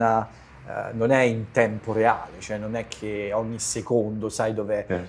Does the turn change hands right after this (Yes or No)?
No